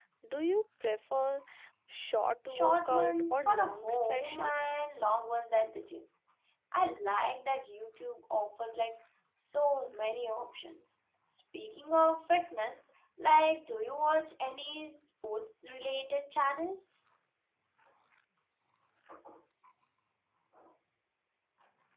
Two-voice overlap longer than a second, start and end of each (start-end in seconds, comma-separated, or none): 2.5-4.5